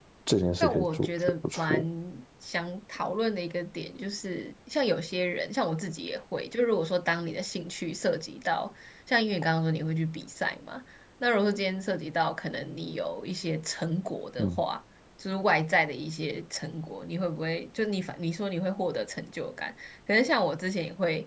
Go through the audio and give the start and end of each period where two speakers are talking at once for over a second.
0.6-1.8

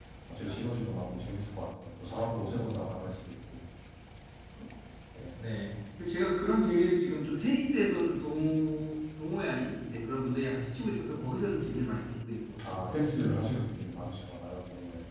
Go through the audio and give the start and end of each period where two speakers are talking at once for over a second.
none

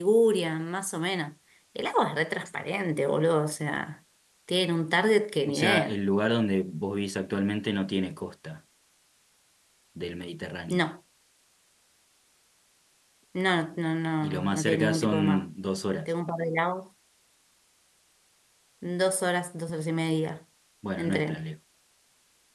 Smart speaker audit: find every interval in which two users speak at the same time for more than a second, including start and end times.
14.2-15.4

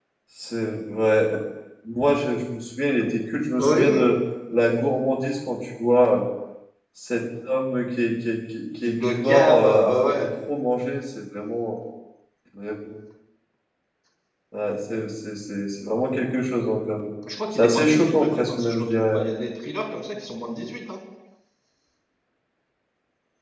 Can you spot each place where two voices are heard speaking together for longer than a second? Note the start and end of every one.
8.8-10.3, 17.5-19.2

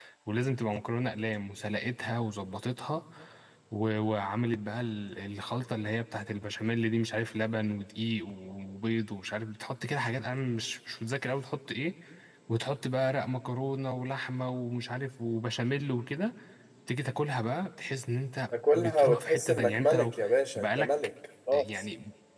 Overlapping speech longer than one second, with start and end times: 18.7-20.1

